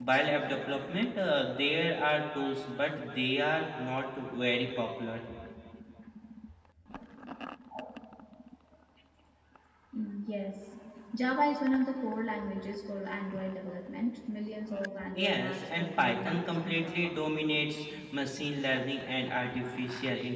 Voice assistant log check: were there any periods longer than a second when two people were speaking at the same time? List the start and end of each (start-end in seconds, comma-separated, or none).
15.2-17.1